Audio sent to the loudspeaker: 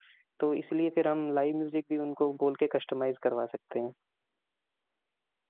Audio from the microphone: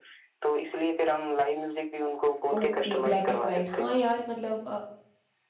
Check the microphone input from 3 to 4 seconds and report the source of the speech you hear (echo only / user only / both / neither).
both